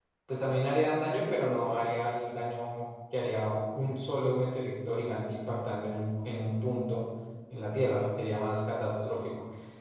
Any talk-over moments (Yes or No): No